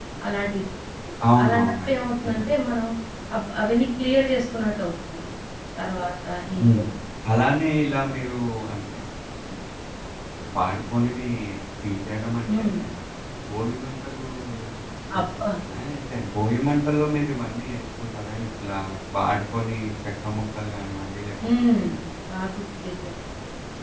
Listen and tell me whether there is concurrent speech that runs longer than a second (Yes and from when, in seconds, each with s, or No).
Yes, from 1.2 s